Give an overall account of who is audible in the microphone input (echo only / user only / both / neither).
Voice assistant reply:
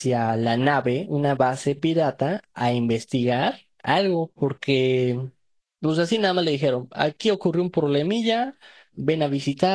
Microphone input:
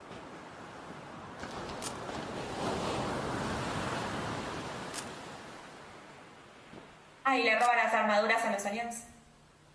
user only